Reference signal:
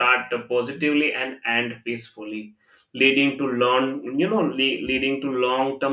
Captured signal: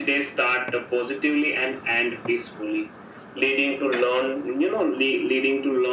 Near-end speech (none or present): none